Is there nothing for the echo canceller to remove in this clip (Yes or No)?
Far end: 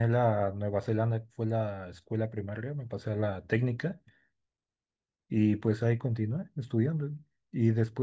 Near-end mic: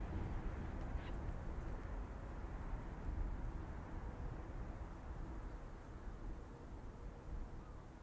Yes